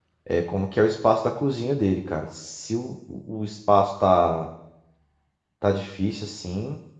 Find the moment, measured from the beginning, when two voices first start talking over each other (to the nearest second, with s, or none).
none